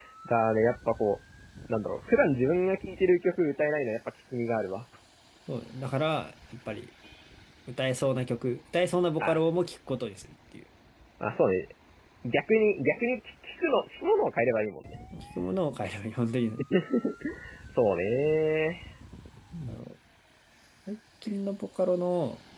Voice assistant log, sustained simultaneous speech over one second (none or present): none